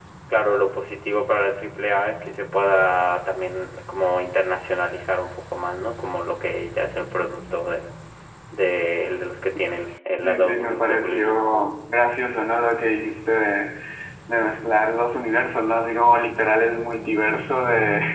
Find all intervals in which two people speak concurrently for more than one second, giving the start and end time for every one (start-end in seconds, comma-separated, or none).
10.2-11.7